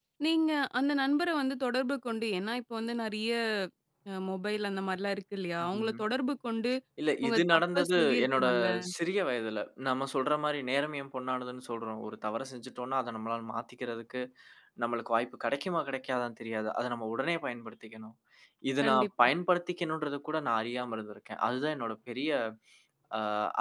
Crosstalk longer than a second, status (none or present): present